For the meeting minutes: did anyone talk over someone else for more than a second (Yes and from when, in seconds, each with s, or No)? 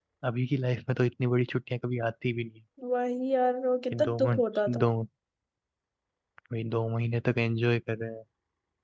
No